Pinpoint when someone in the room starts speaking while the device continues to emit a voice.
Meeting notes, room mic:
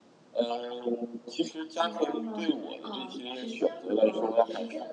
2 s

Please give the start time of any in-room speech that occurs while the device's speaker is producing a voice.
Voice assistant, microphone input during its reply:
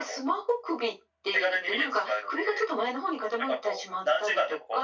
none

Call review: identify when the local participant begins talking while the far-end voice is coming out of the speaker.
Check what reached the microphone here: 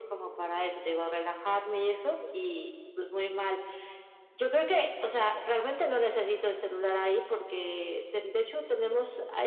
none

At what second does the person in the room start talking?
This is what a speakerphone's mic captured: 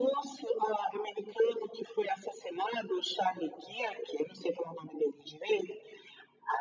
none

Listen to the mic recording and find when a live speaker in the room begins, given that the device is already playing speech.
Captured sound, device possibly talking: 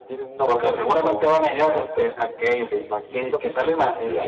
1 s

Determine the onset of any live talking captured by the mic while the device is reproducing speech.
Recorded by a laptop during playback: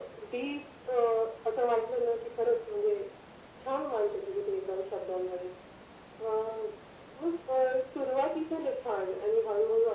none

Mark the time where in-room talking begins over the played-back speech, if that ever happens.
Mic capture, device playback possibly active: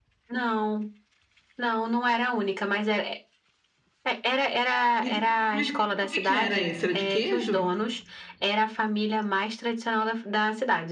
5 s

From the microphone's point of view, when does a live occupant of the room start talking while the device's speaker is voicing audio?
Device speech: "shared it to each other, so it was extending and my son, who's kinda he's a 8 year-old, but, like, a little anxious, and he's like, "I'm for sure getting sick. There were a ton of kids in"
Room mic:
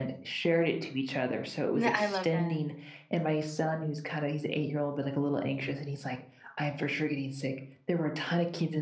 2 s

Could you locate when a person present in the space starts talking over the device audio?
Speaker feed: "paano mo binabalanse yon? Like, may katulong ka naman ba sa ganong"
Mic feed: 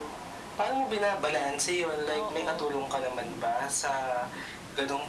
2 s

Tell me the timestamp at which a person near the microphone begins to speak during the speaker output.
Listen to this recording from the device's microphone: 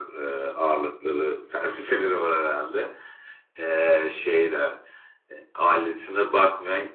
none

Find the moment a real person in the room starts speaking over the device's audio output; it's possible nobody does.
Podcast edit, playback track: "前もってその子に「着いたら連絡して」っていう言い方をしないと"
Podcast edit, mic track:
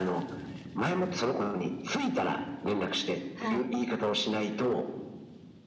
3 s

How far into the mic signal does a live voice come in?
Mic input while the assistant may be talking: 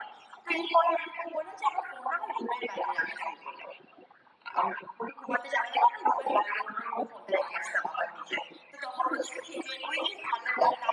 none

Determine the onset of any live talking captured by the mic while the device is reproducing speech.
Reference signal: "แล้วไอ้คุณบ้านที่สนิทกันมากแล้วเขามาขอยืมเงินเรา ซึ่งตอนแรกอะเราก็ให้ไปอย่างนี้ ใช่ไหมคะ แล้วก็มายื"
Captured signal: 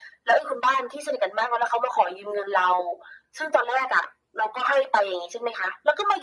none

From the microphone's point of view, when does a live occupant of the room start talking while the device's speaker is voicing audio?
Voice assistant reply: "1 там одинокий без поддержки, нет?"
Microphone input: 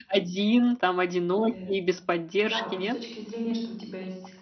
1 s

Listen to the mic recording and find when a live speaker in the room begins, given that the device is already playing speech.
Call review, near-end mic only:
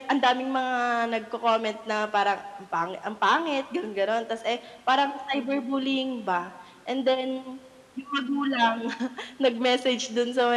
none

